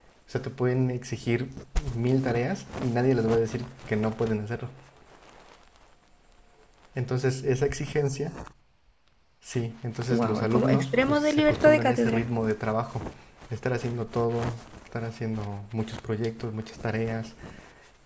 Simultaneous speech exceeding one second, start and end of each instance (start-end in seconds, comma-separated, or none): 10.1-12.2